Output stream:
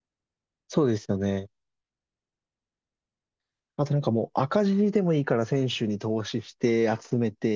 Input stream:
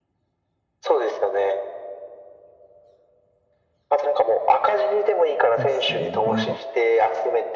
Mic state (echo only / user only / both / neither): both